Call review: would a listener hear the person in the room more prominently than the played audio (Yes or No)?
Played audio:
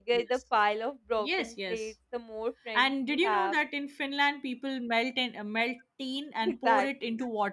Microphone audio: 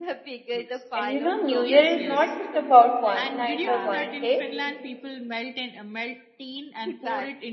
Yes